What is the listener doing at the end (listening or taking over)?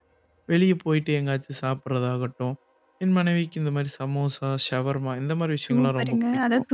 taking over